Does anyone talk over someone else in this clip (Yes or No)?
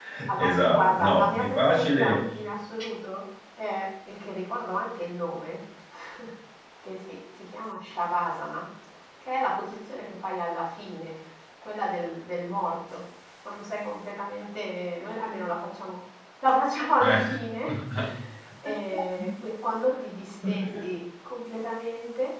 Yes